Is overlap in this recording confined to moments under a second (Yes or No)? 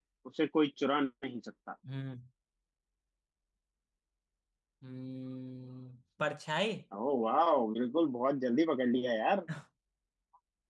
Yes